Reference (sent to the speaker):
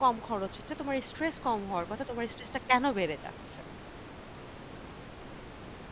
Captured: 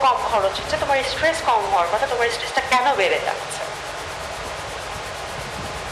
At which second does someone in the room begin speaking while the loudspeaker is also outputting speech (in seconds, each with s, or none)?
none